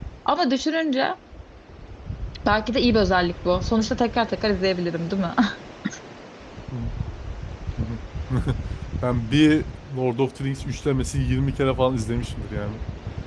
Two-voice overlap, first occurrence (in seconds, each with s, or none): none